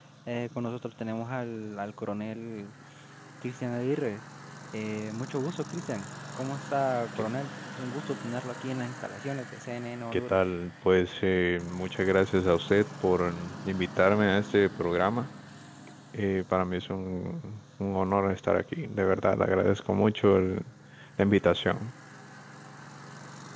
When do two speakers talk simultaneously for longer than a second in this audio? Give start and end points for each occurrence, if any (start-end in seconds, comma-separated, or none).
none